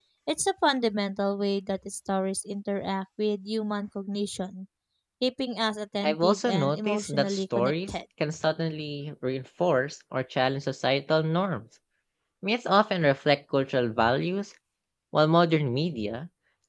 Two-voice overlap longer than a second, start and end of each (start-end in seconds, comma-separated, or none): 6.0-7.9